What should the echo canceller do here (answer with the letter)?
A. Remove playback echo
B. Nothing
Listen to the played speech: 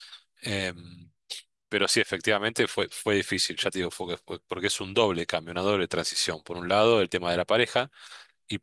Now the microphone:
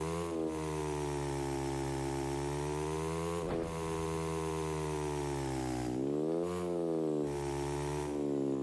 B